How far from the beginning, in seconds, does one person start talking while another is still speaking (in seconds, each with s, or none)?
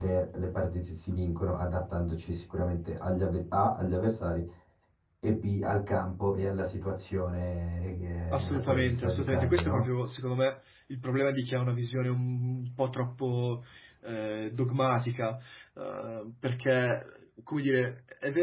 8.3 s